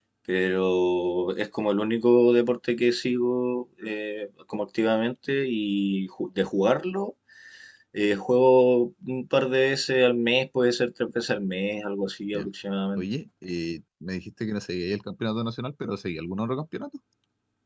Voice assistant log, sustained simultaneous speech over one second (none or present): none